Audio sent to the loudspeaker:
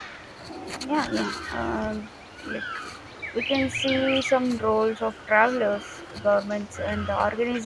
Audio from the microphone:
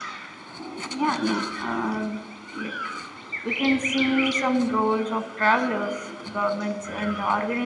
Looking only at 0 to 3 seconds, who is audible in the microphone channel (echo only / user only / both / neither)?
echo only